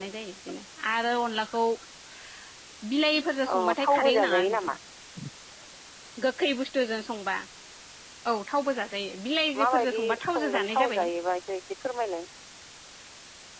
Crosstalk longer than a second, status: present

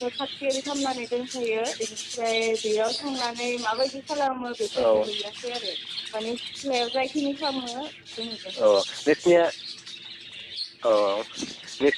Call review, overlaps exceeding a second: none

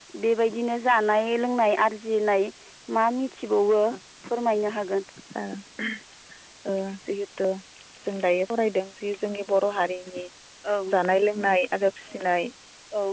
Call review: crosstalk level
none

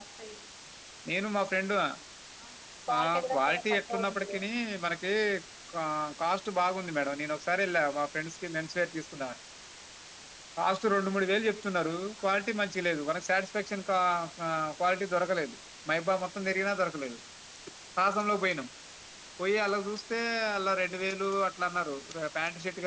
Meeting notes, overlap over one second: present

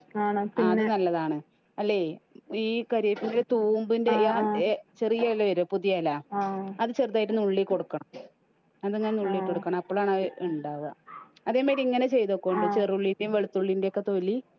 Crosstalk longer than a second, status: none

